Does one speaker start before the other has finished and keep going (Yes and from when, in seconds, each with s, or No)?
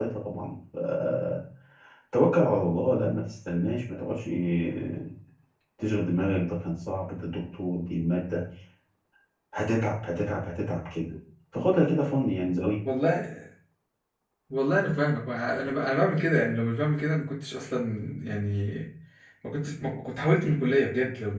No